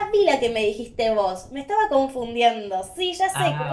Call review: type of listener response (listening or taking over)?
listening